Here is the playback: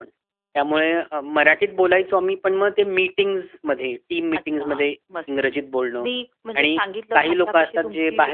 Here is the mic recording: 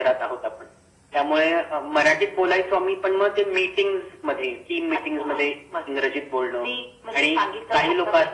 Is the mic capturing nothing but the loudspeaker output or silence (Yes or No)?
Yes